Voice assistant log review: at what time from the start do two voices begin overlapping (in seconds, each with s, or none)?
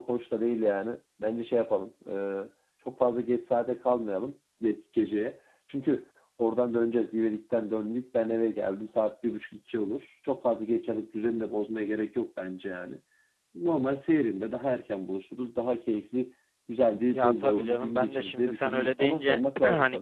17.1 s